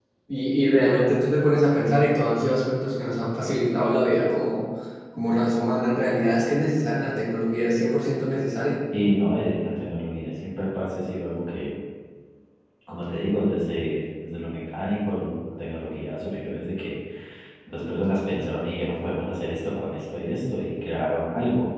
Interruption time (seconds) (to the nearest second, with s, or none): none